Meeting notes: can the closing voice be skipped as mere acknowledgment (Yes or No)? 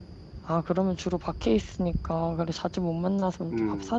No